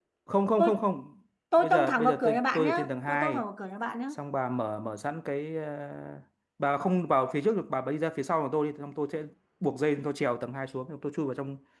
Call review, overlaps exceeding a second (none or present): present